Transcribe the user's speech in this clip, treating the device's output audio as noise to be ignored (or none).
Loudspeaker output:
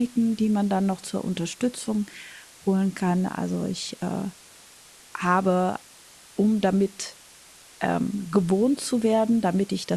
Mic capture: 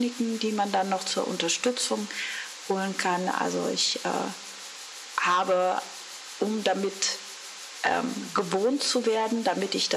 none